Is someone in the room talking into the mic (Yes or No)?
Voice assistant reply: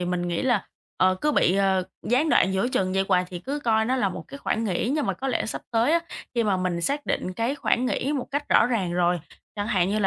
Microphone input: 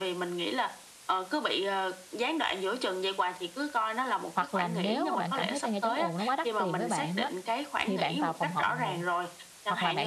Yes